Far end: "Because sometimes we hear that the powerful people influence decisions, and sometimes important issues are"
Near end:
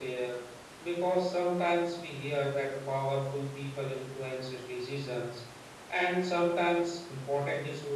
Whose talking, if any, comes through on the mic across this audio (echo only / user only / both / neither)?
echo only